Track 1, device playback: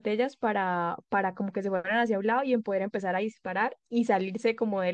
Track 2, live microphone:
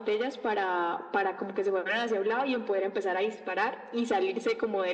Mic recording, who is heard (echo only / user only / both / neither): echo only